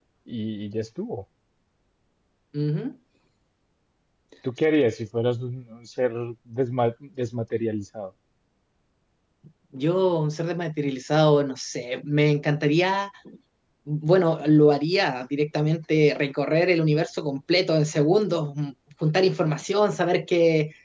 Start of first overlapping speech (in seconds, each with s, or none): none